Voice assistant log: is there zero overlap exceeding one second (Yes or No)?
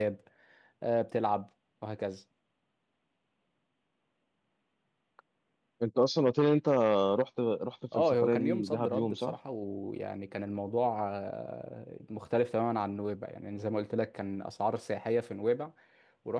No